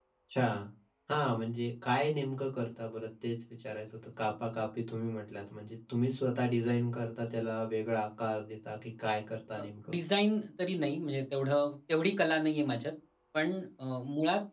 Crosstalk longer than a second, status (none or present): none